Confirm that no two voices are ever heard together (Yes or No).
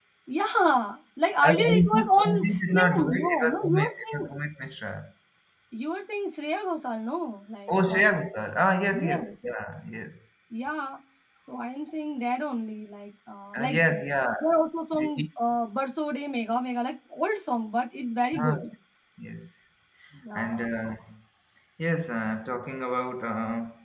No